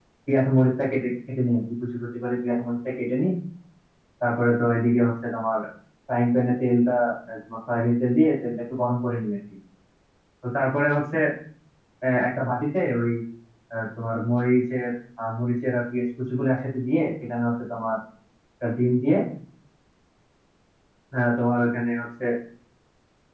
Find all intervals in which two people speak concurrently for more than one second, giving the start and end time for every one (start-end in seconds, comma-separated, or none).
none